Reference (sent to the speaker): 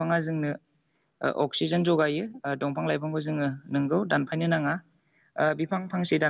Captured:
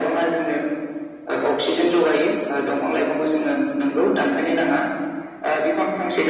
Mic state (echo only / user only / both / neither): echo only